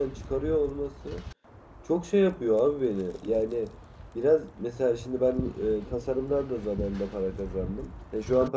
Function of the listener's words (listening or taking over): listening